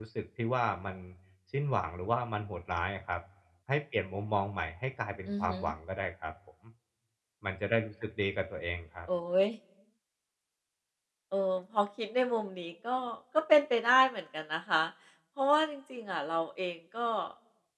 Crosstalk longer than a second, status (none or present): none